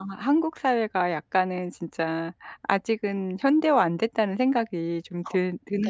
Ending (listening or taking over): taking over